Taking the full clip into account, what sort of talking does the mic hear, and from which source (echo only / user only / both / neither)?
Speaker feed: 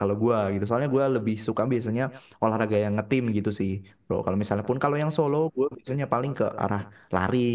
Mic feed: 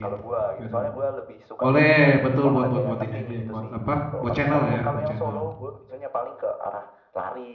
both